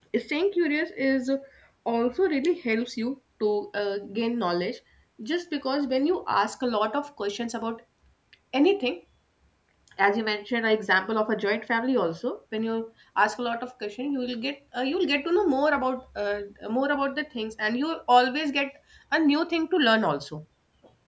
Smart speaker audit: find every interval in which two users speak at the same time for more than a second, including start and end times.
none

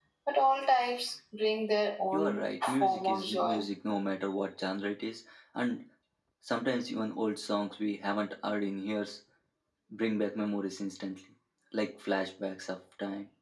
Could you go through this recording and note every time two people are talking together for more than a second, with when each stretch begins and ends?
2.1-3.6

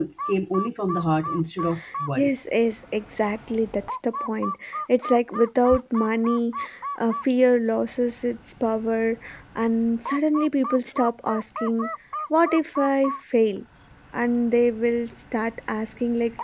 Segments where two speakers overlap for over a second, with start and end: none

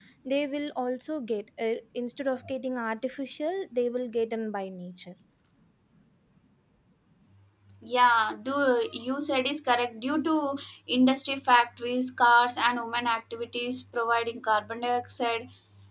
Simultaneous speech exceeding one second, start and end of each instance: none

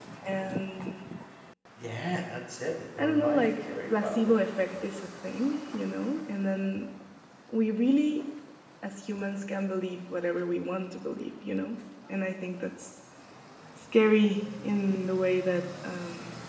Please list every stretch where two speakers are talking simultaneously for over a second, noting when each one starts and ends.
3.0-4.3

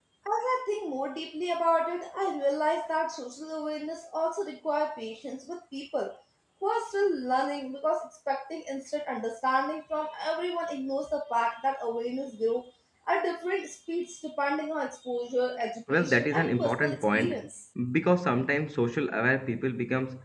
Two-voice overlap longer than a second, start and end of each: 15.9-17.4

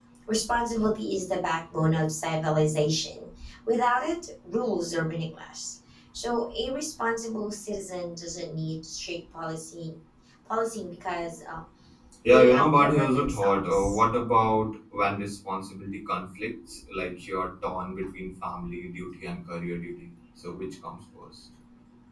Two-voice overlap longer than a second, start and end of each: 12.3-14.0

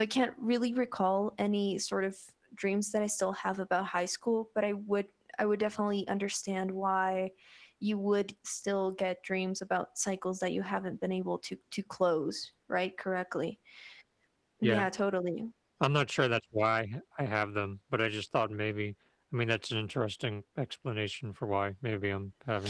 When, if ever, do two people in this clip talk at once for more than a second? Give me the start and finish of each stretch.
none

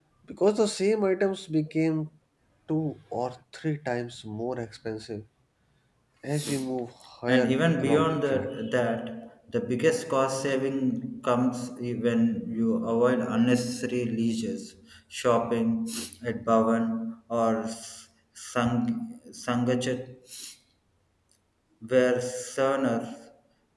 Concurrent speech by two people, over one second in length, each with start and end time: 7.3-8.5

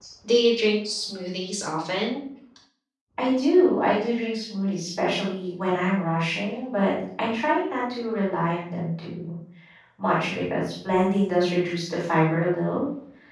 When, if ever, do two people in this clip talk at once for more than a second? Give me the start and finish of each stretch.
none

